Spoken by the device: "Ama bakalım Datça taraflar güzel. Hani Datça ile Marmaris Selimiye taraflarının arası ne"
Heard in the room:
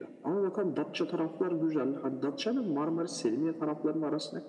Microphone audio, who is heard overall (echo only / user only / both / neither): echo only